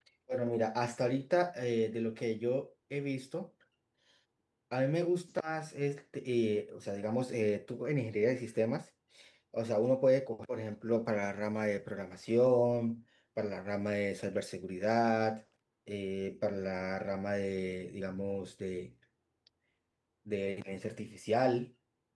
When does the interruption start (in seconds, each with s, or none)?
none